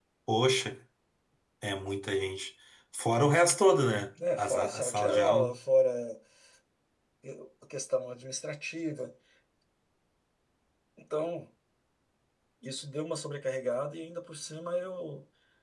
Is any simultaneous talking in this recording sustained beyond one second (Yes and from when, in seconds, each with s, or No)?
Yes, from 4.2 s